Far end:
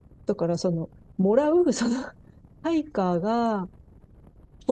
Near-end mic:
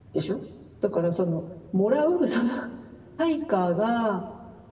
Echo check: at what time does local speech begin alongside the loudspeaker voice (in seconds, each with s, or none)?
none